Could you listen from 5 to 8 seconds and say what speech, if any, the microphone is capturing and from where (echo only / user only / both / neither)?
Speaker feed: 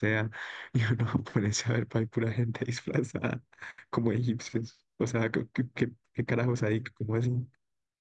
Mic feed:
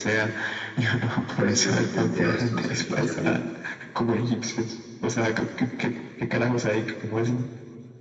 echo only